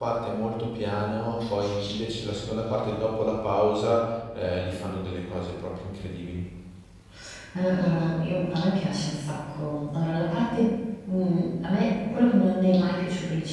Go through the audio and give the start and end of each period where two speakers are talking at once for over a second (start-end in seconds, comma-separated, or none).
none